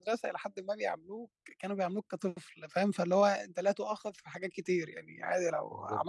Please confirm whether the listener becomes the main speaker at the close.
No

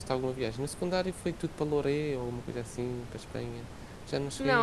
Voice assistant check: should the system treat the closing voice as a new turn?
Yes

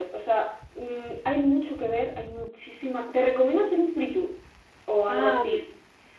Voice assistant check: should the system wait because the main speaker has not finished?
Yes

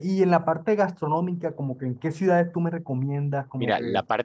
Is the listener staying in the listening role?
No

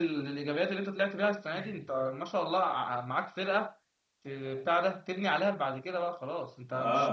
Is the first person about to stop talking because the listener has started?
Yes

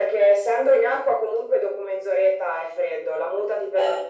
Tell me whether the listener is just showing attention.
Yes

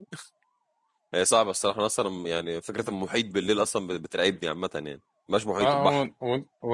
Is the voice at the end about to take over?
Yes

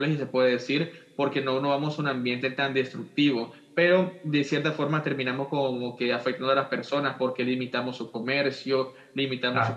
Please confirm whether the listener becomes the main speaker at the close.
Yes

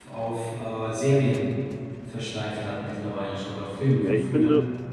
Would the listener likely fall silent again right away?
No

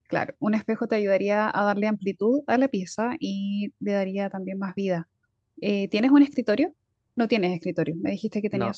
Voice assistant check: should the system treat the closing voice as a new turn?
No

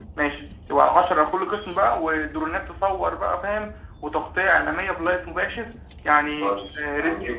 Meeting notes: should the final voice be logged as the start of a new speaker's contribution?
Yes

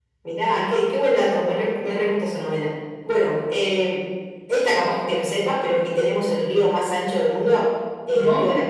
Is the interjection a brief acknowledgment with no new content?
Yes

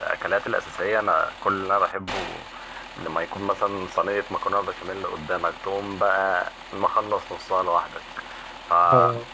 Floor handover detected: No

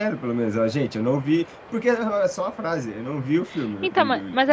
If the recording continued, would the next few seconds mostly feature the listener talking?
Yes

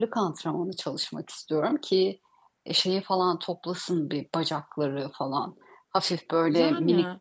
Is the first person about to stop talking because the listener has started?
No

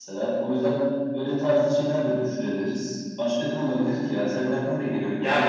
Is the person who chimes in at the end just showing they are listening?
No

